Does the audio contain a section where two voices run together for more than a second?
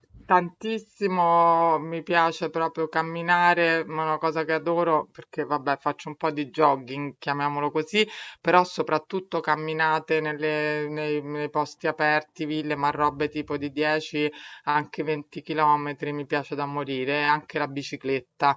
No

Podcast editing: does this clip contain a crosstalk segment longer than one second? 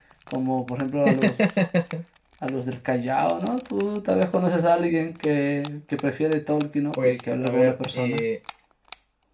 Yes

